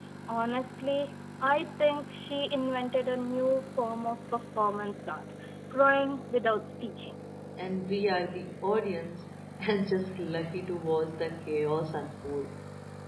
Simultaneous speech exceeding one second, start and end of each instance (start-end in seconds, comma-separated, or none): none